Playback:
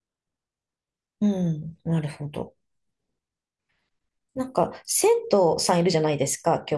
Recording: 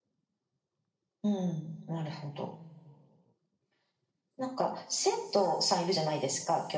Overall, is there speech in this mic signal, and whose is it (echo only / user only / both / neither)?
echo only